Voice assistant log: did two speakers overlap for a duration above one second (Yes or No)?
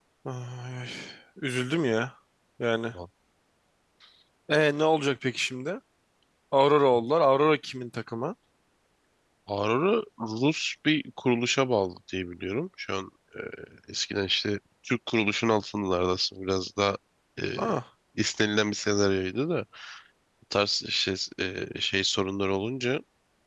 No